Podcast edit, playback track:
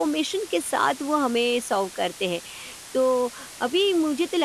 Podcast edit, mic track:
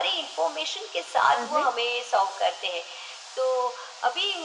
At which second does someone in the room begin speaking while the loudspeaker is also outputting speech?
1.4 s

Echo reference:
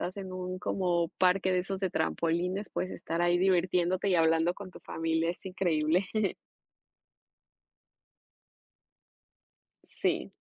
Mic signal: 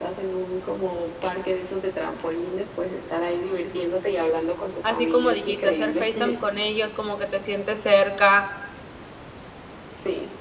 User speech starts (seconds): 4.8 s

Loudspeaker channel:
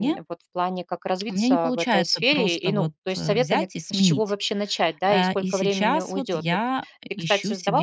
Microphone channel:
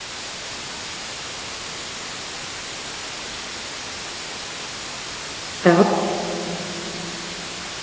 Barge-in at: 5.6 s

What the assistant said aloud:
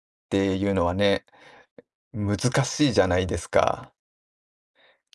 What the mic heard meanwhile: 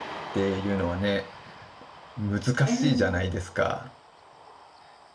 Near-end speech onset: 2.6 s

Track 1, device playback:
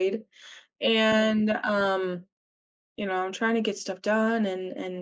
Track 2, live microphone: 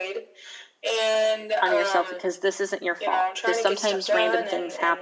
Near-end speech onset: 1.6 s

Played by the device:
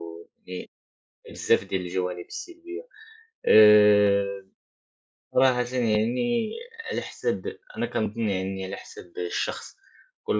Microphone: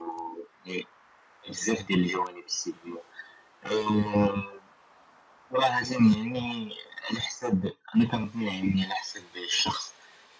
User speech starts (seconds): none

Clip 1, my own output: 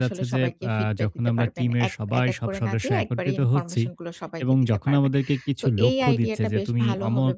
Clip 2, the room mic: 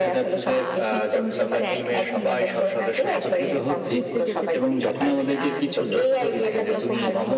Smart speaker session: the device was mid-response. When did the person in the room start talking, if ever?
0.5 s

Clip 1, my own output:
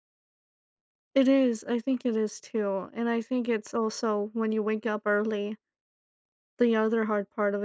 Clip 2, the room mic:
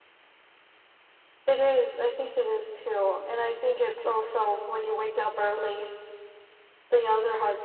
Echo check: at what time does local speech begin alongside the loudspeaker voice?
none

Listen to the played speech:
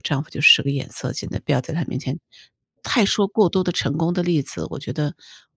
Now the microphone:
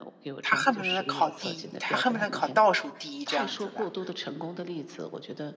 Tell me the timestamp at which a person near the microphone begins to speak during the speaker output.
0.4 s

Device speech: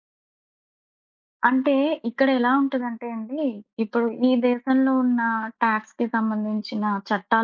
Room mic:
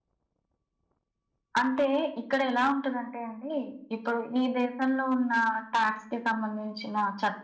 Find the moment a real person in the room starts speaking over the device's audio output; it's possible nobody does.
none

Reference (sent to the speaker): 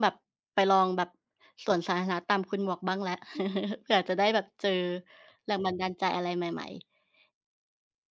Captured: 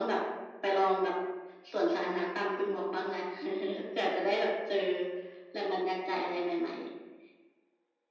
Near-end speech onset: none

